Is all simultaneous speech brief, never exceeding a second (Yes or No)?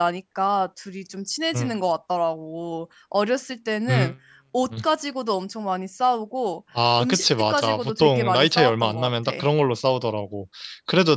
No